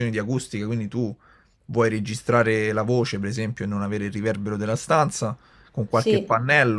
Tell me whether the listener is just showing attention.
Yes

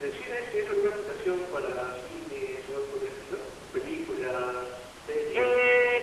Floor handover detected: Yes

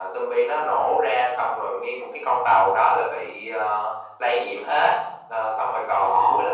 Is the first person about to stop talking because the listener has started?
No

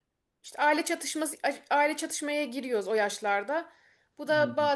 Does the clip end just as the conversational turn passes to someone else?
No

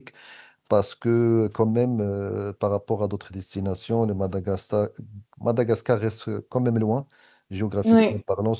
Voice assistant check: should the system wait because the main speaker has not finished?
Yes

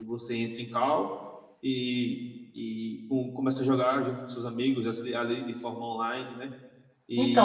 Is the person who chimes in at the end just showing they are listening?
No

